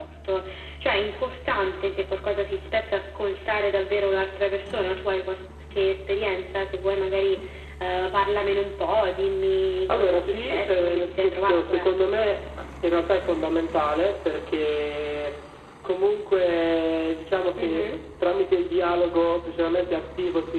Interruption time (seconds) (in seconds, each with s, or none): 9.9 s